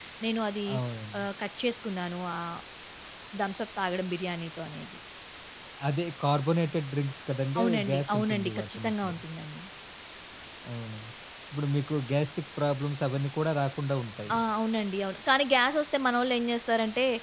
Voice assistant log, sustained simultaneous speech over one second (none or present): present